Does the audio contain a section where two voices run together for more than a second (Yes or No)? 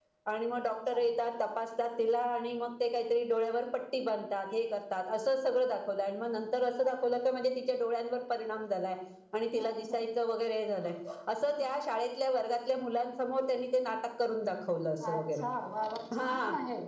No